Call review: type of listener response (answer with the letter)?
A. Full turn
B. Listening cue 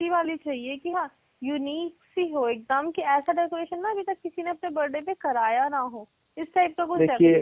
A